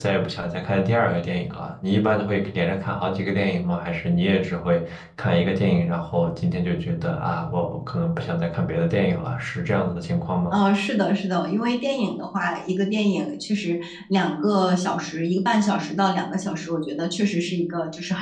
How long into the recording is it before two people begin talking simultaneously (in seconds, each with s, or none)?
none